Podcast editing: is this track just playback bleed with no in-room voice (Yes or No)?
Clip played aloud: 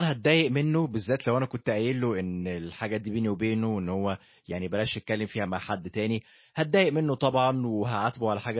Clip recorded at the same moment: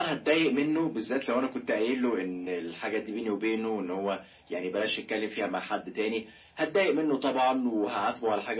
Yes